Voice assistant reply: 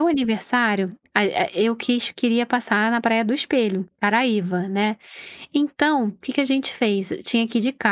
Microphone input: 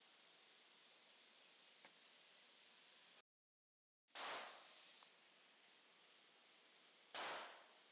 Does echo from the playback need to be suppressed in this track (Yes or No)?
No